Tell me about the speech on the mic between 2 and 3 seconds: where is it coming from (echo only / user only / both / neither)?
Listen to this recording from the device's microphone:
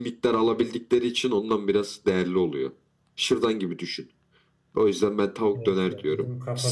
echo only